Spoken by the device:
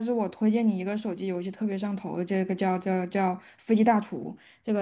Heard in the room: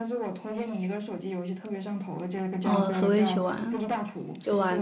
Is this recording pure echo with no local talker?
No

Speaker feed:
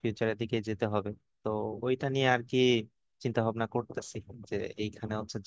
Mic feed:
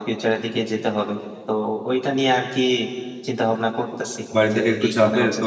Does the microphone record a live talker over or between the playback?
Yes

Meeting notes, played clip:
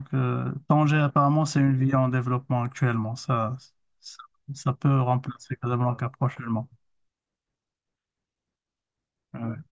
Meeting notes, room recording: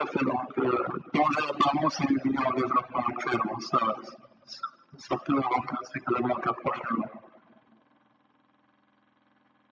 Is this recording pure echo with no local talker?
Yes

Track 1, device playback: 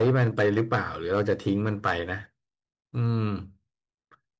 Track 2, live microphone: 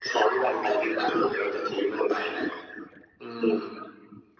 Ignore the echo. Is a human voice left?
No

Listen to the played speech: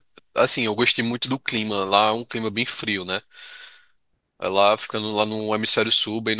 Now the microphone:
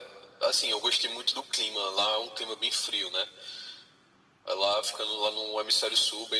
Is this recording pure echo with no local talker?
Yes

